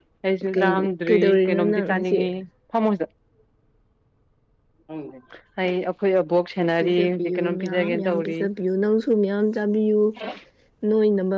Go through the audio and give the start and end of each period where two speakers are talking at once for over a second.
0.5-2.2, 6.8-8.3

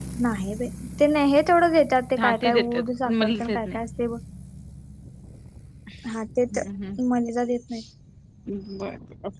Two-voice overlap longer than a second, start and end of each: 2.2-3.6

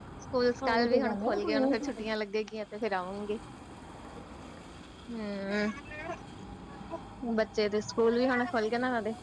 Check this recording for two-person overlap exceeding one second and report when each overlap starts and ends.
0.6-2.1

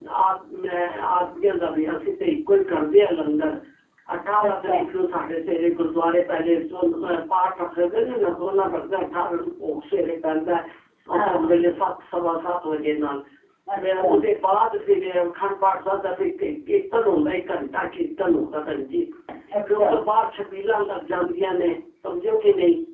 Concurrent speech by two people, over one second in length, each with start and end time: none

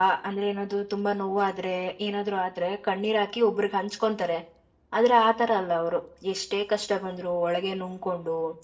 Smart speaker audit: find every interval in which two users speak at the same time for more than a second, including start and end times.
none

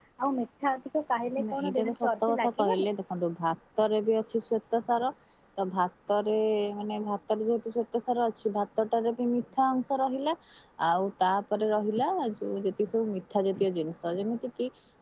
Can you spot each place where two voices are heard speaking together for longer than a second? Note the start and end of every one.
1.5-2.9

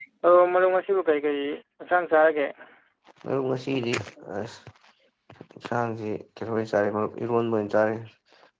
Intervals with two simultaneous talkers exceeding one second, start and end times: none

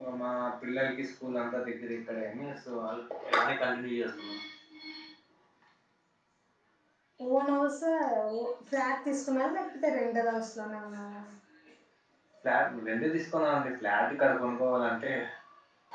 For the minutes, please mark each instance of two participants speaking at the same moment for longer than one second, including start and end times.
none

